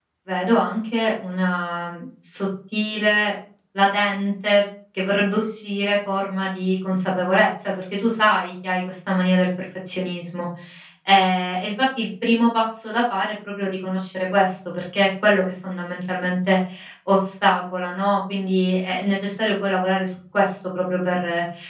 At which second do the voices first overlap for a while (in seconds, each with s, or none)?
none